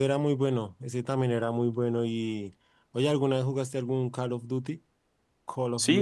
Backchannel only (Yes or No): No